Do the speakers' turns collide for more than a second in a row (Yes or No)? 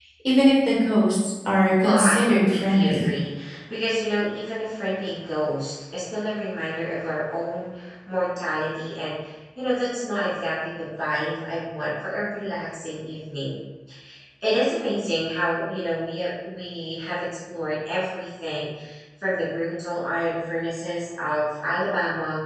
Yes